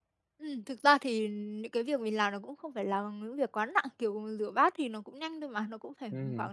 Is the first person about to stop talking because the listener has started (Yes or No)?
No